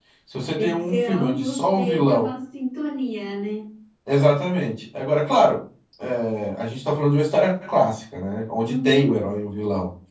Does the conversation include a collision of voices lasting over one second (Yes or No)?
Yes